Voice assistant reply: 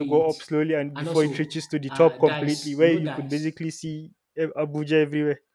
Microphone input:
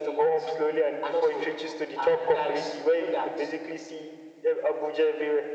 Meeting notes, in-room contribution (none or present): none